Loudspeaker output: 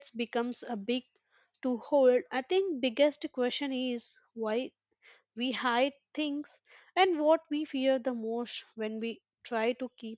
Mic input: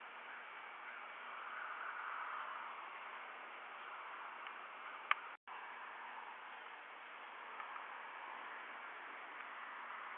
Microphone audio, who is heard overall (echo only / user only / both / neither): neither